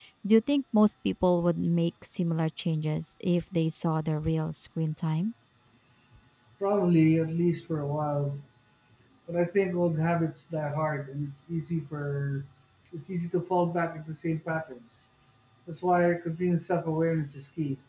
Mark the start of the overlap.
none

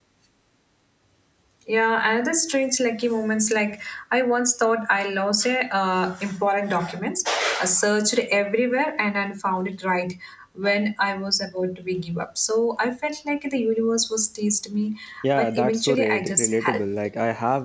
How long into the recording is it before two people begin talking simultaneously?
15 s

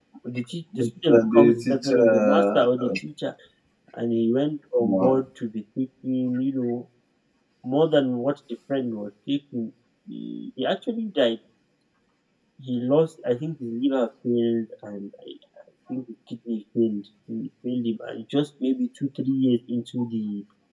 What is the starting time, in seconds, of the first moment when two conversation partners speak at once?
1 s

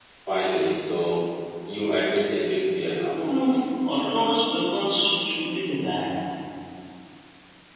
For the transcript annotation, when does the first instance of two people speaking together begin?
none

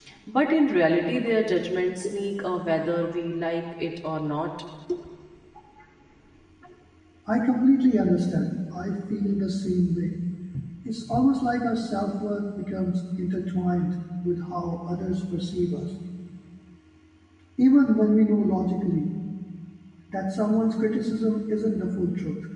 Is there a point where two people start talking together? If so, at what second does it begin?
none

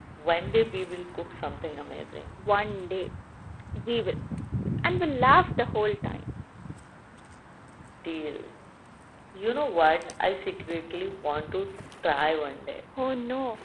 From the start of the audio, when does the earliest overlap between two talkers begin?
none

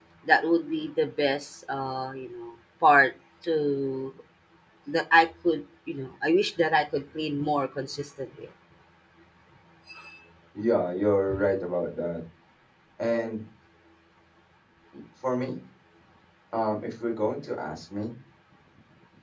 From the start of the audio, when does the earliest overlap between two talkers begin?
none

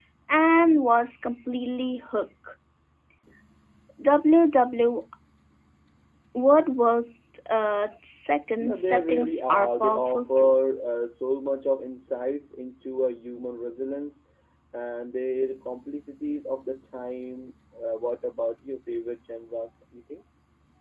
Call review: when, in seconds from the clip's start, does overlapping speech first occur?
9 s

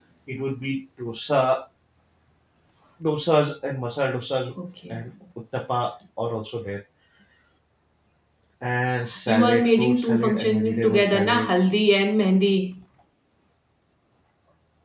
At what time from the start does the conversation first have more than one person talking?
9 s

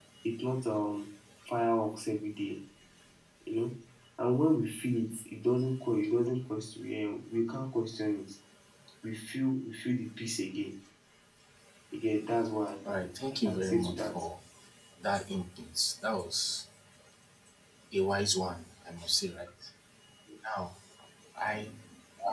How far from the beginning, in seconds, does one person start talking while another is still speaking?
13 s

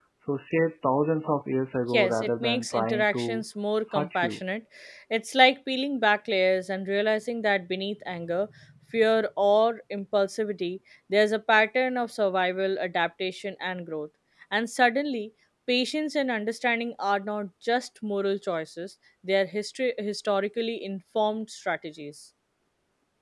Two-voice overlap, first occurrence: 2 s

